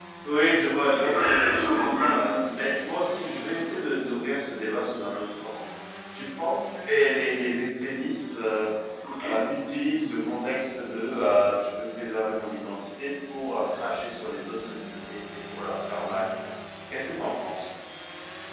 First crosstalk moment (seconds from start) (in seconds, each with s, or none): 0.9 s